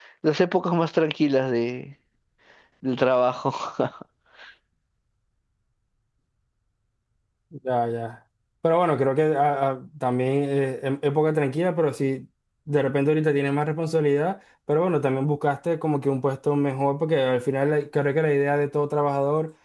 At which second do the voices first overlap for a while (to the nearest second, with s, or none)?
none